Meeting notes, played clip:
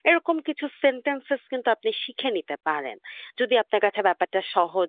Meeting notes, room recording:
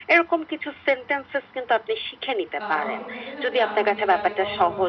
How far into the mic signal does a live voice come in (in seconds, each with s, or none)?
2.6 s